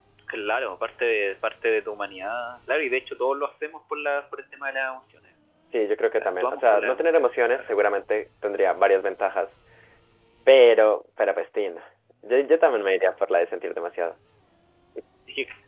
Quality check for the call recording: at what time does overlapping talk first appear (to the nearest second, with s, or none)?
6 s